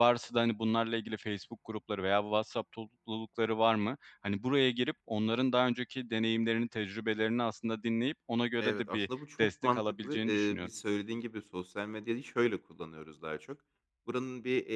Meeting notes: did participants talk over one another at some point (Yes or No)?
Yes